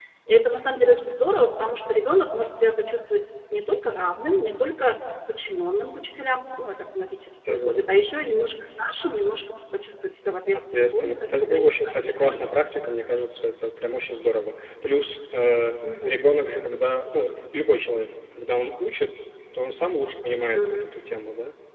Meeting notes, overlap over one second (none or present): present